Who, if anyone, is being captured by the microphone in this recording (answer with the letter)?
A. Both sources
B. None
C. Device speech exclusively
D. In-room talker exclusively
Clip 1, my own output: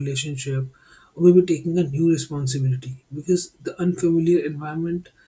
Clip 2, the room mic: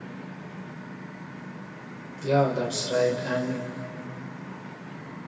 D